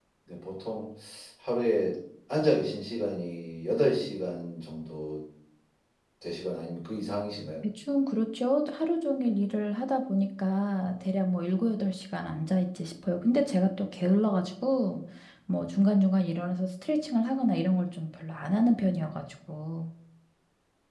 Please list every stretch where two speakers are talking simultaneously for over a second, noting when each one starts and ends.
none

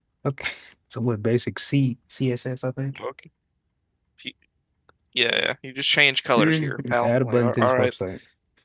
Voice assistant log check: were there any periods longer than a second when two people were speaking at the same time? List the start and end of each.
6.4-7.9

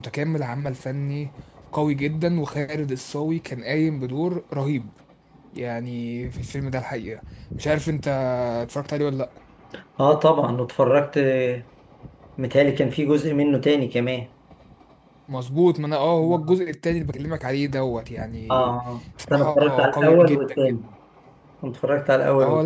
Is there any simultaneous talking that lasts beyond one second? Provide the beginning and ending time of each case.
19.3-20.8

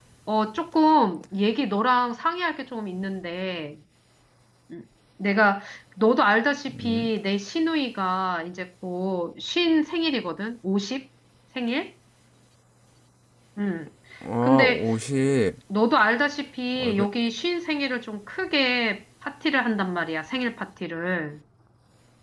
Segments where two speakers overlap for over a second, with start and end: none

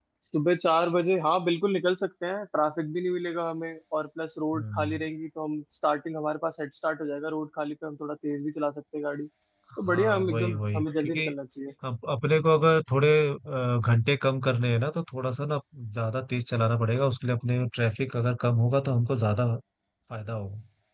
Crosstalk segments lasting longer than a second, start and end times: 9.8-11.3

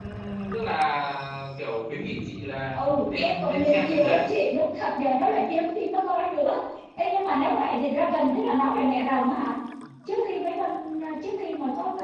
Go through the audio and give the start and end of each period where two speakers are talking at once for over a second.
2.7-4.2

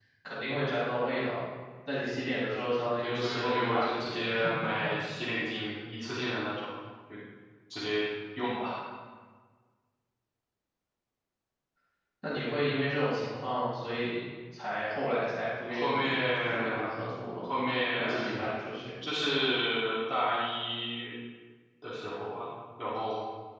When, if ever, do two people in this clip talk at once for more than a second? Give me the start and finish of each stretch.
3.0-4.3, 15.7-17.0

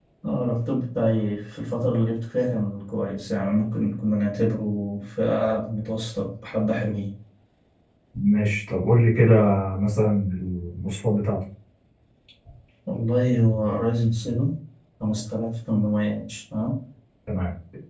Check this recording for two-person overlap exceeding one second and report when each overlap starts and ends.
none

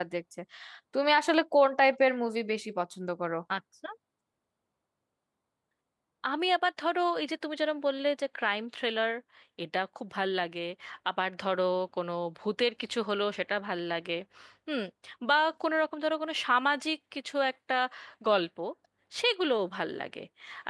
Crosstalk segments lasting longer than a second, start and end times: none

